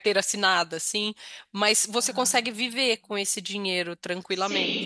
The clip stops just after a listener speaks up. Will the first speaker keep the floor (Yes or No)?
No